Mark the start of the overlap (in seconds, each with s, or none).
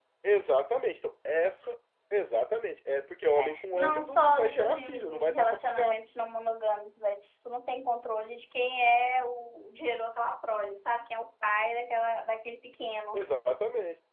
3.4 s